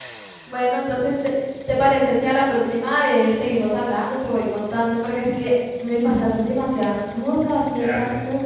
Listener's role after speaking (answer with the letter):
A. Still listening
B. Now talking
B